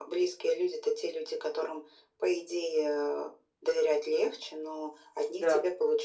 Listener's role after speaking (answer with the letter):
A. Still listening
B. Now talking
A